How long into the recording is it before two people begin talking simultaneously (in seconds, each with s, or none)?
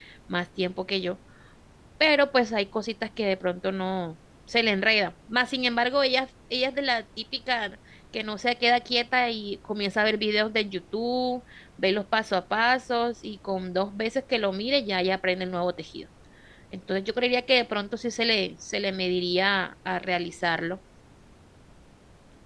none